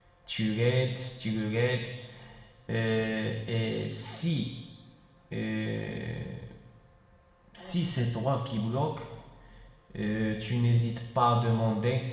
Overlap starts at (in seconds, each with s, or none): none